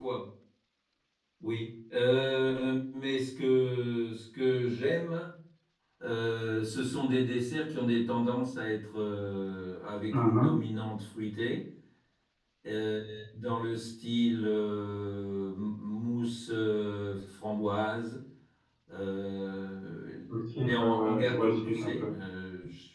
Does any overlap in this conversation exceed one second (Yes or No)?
Yes